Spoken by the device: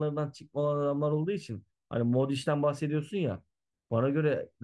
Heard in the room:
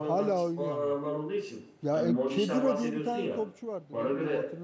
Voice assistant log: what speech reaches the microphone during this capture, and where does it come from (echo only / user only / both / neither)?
both